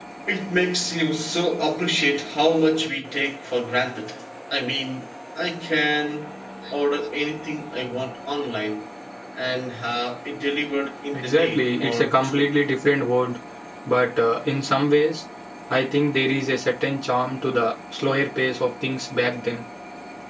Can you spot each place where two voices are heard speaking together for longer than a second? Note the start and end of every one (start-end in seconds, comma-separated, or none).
11.1-12.5